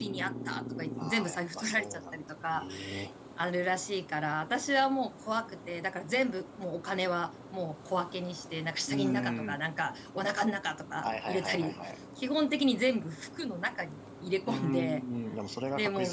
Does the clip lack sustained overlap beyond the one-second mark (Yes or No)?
No